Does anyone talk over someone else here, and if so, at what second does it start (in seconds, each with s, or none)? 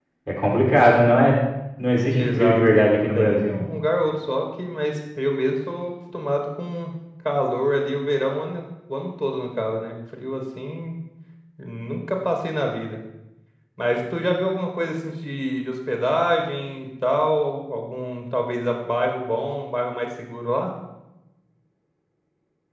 2.1 s